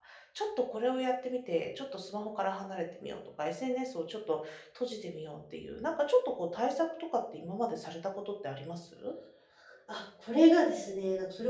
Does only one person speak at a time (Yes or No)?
Yes